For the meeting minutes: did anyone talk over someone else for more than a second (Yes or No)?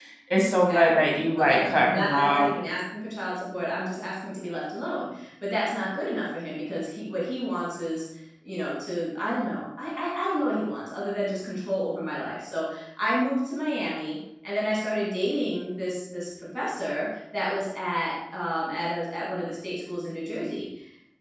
Yes